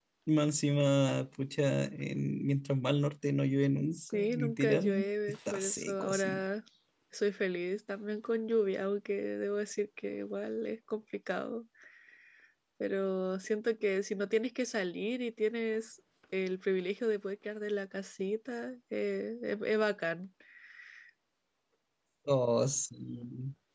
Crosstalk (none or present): present